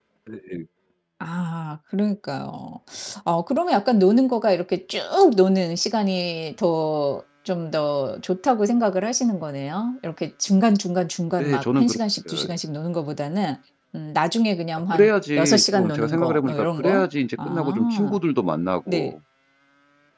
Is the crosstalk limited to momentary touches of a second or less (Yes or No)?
No